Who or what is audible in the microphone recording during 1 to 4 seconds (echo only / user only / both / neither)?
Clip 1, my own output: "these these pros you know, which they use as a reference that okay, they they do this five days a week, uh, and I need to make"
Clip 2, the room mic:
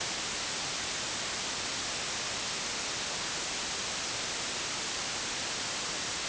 neither